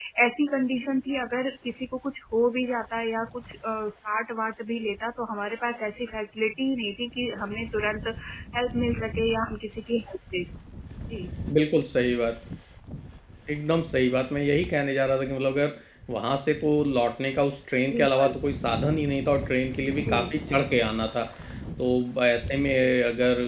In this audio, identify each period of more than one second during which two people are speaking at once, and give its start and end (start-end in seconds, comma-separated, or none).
none